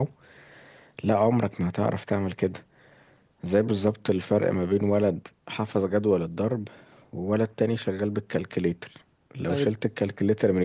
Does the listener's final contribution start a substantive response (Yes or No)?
No